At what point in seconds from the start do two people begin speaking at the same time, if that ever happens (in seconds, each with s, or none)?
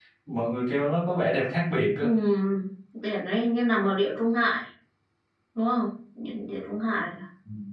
none